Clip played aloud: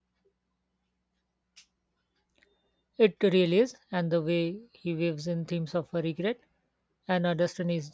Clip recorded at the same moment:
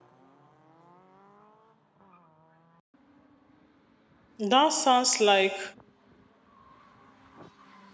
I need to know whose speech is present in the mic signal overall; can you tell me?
user only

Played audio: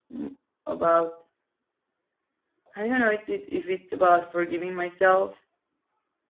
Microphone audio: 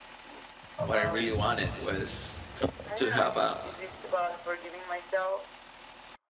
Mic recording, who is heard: both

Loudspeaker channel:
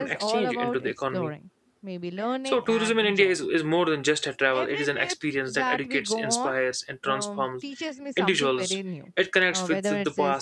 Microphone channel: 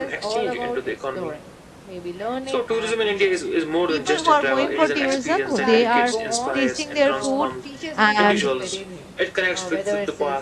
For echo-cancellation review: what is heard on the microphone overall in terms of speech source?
both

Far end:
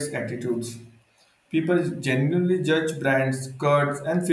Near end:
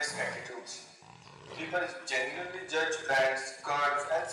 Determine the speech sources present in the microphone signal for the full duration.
echo only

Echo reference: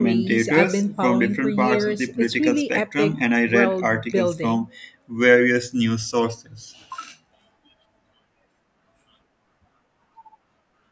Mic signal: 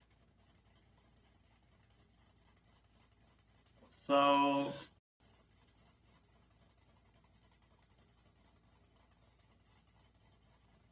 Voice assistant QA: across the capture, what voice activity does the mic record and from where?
user only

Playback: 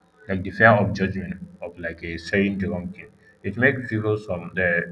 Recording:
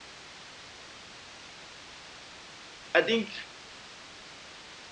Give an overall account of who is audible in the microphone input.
user only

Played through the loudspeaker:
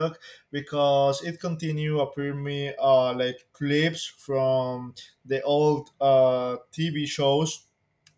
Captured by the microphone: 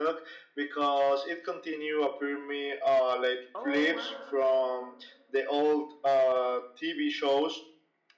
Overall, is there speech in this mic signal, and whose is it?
both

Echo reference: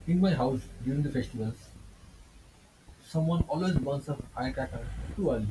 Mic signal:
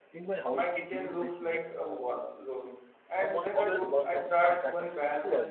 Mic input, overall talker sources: both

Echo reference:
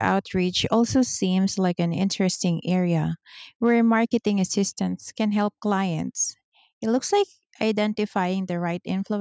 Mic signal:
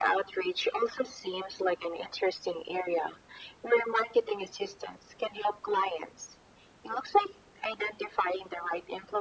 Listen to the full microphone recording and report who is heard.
echo only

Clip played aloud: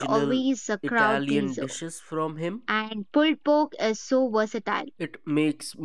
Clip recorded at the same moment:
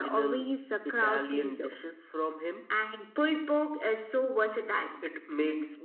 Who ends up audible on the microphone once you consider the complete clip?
echo only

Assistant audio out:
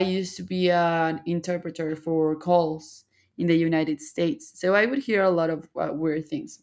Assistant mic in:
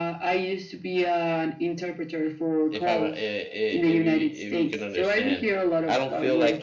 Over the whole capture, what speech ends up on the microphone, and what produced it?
both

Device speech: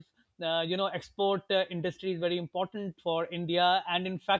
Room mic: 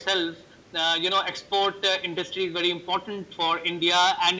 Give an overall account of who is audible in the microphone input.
echo only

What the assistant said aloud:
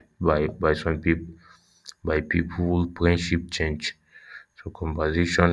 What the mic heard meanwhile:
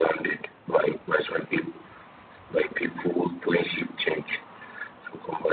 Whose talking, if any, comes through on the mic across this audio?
echo only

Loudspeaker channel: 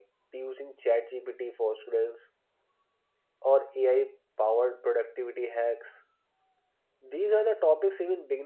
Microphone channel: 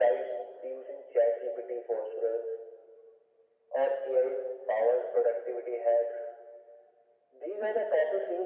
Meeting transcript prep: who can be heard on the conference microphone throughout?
echo only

